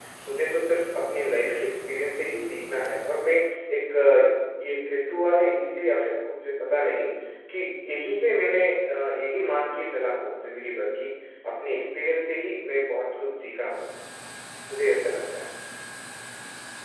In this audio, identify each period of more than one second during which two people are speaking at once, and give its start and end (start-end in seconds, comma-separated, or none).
none